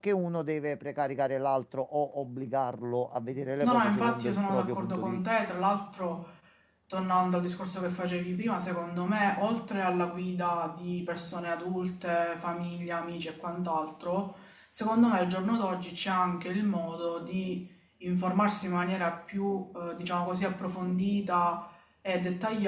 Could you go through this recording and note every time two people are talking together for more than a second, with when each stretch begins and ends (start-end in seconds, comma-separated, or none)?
3.6-5.2